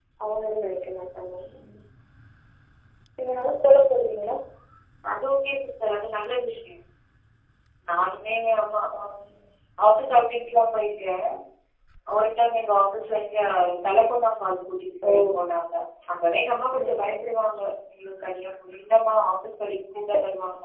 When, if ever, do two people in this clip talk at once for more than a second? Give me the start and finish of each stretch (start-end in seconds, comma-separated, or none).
none